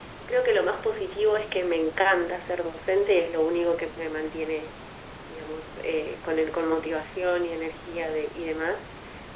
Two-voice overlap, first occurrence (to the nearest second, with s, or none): none